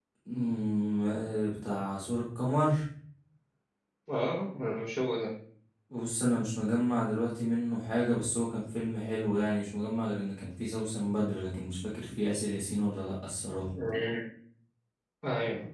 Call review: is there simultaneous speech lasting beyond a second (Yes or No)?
No